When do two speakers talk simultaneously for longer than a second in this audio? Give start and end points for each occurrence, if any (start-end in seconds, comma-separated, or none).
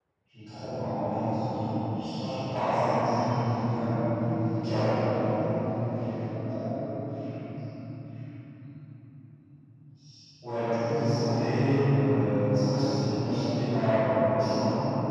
2.6-4.0